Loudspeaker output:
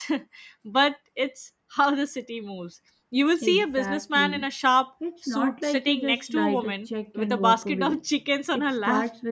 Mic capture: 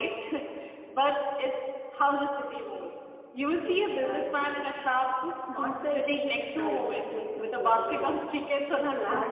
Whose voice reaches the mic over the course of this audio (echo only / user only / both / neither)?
echo only